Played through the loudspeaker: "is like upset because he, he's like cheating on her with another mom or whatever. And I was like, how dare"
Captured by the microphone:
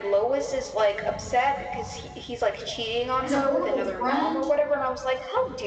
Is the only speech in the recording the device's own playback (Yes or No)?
No